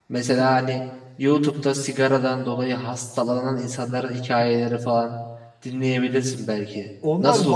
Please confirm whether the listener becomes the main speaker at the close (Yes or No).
Yes